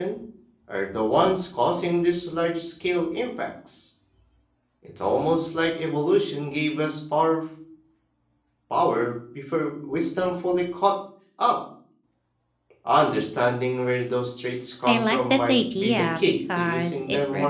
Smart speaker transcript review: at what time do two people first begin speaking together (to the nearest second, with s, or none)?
15 s